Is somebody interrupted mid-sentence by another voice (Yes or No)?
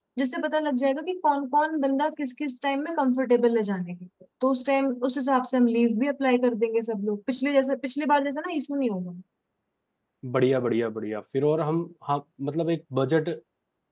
No